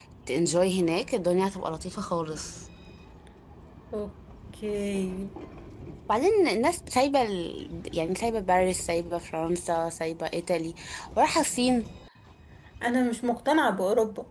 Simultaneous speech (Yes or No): No